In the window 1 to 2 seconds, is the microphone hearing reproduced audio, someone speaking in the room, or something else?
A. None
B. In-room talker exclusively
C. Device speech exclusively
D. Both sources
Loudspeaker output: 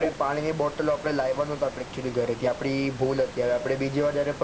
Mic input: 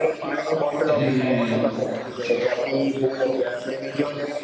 D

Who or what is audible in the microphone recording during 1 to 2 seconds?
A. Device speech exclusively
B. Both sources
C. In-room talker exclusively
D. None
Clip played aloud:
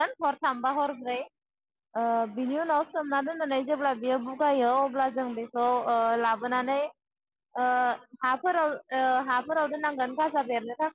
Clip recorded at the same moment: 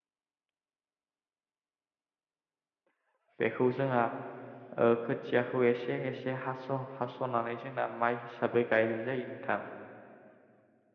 D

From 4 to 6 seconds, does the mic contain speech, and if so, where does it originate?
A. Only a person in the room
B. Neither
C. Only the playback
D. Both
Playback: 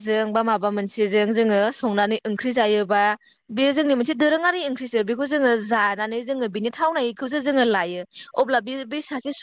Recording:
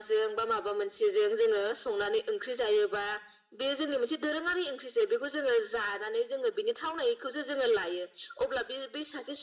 C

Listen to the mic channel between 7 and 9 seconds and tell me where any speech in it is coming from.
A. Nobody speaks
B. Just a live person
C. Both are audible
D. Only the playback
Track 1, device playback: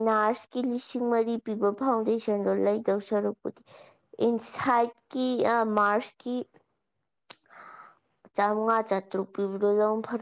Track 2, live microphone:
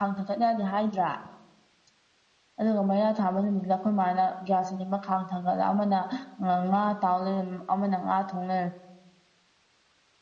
B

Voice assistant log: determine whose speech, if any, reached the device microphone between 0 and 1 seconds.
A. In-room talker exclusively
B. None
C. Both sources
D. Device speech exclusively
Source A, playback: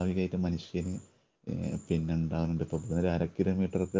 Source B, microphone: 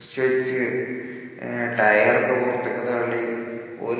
A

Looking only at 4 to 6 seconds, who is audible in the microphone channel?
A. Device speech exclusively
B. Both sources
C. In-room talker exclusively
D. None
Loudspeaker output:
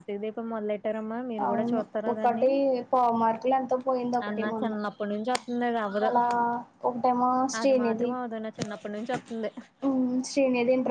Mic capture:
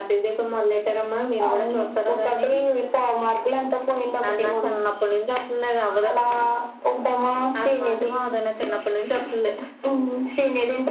A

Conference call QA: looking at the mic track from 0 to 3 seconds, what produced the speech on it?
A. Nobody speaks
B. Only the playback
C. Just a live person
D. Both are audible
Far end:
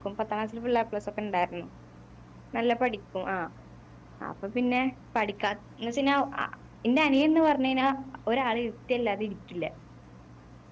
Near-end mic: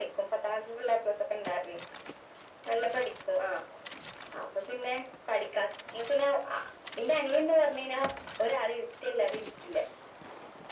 B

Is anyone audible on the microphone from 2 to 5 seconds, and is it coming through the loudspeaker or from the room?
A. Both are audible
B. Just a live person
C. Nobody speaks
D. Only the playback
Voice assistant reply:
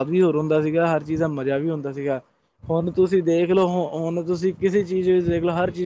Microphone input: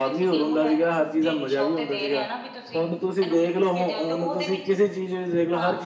A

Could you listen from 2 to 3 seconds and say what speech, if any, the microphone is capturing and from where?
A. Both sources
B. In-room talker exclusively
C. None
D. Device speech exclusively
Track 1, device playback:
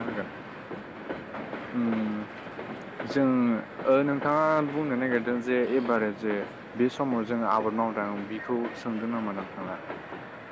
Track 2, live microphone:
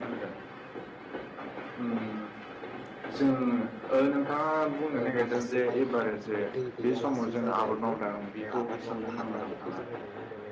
D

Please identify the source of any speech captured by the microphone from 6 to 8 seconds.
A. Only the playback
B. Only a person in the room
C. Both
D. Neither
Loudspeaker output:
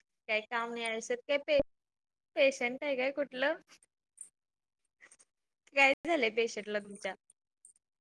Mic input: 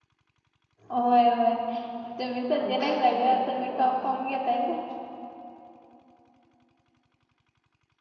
D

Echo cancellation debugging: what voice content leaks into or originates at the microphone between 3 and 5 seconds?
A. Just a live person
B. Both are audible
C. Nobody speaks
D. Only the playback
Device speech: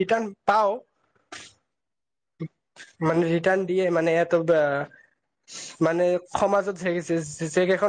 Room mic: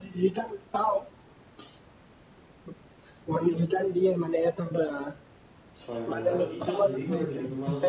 D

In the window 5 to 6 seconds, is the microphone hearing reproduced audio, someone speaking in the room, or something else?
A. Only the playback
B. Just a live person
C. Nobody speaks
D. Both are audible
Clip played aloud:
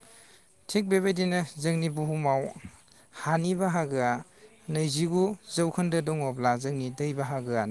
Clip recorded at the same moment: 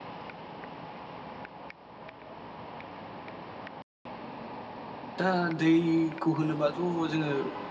B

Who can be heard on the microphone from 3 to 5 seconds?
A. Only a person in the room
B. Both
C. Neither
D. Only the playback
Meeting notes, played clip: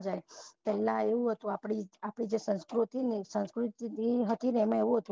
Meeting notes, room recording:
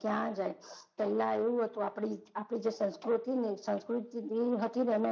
D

